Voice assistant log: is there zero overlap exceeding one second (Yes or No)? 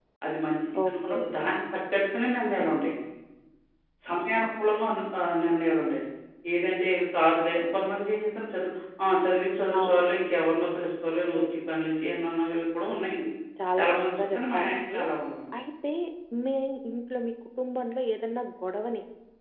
No